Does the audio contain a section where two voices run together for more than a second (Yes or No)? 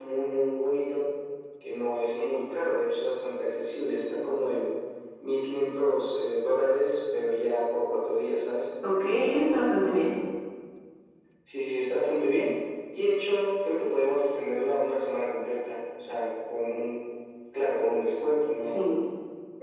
No